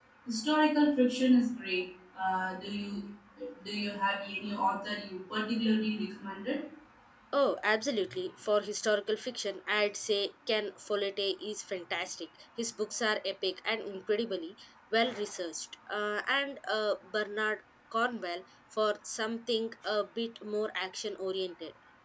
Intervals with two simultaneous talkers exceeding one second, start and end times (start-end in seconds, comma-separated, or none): none